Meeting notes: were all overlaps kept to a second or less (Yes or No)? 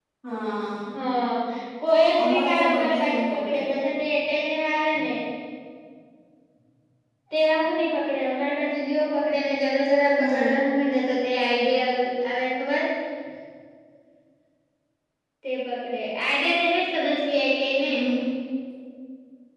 No